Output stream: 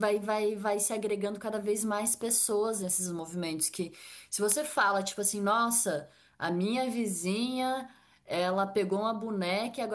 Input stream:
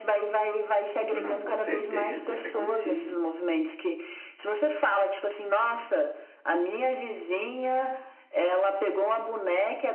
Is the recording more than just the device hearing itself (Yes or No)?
Yes